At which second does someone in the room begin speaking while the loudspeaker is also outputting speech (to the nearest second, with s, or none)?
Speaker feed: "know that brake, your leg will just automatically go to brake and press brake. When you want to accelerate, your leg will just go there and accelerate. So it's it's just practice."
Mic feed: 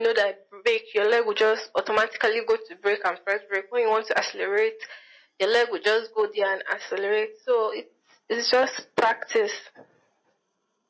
none